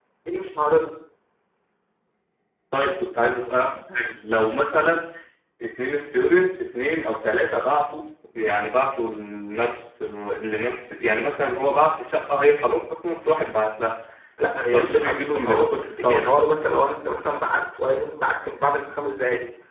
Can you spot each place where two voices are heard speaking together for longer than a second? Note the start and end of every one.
14.7-16.4

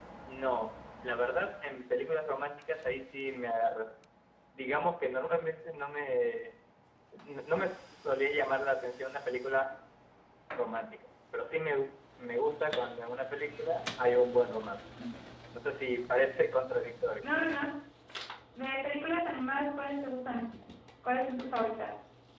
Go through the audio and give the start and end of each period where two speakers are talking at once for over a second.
none

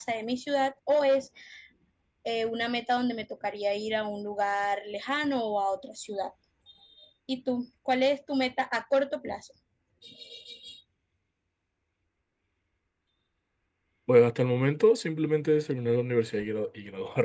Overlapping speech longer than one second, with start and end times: none

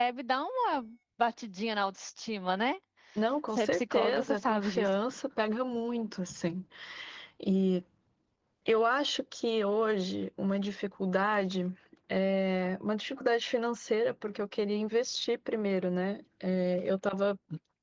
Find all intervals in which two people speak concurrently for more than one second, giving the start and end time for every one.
3.5-5.0

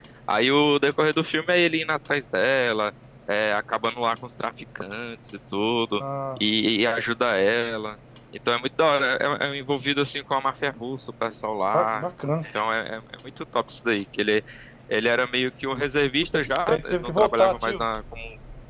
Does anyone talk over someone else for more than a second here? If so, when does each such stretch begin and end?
16.3-17.9

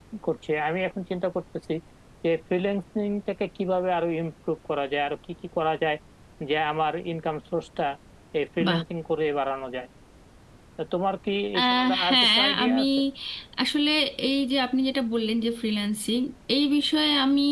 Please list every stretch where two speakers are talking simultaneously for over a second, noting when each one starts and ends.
11.6-12.8

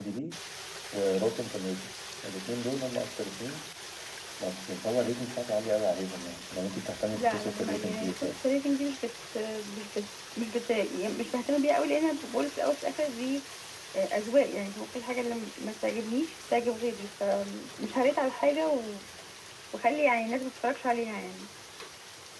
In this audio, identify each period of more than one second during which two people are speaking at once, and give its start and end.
7.1-8.3

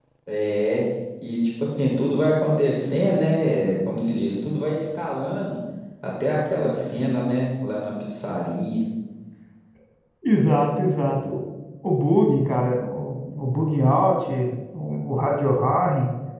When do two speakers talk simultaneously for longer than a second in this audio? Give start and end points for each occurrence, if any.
none

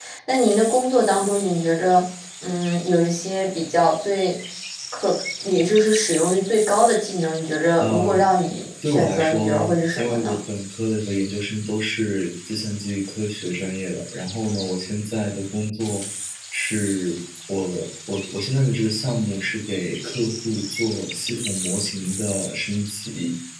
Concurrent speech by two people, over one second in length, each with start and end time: 8.8-10.4

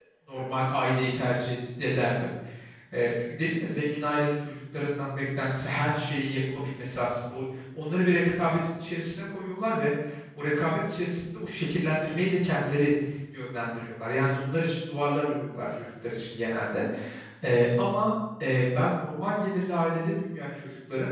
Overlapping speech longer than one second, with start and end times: none

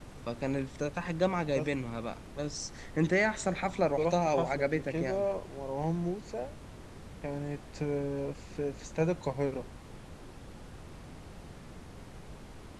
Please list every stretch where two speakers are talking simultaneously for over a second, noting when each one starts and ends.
4.0-5.2

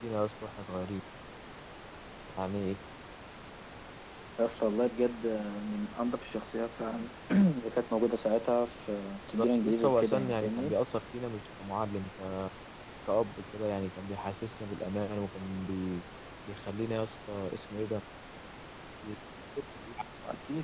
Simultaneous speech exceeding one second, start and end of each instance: 9.3-10.7

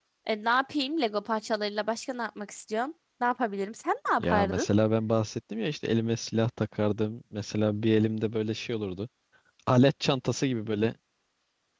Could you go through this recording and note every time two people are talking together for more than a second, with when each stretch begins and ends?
none

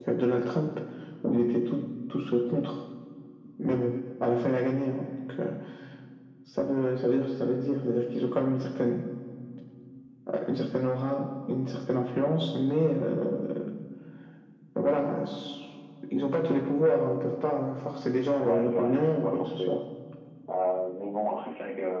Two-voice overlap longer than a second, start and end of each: 18.4-19.7

